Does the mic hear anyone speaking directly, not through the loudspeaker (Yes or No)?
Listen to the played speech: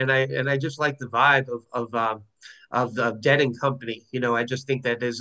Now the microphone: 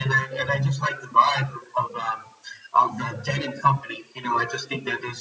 No